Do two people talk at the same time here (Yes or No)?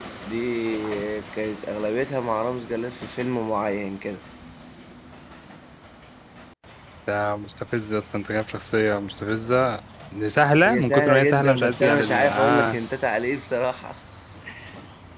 Yes